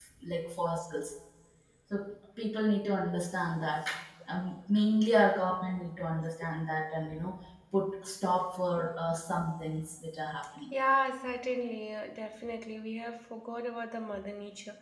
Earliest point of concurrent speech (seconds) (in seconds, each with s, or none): none